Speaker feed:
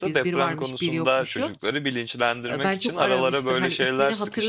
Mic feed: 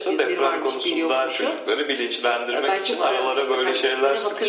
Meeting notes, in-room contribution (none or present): none